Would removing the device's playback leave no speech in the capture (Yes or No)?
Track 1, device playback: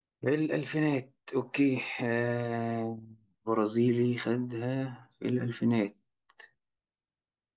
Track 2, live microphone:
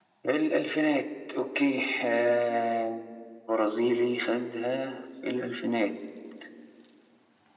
Yes